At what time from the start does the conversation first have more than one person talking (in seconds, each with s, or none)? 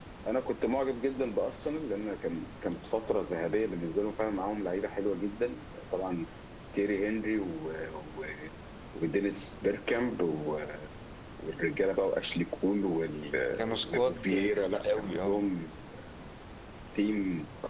13.7 s